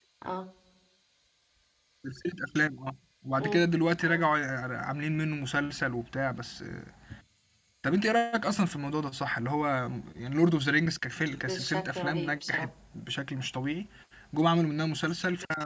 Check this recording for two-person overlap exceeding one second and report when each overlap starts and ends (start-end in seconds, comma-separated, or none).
11.3-12.7